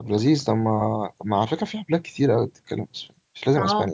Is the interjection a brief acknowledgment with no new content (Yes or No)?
No